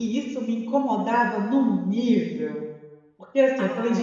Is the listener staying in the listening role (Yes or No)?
Yes